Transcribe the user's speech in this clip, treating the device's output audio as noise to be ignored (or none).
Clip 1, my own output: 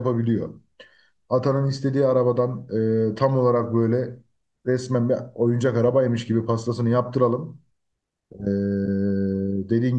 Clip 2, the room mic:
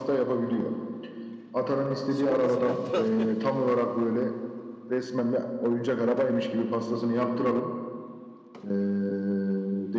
Sigortasını yaptırak.